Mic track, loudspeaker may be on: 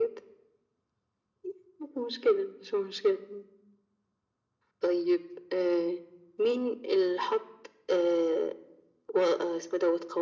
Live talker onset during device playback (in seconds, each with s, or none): none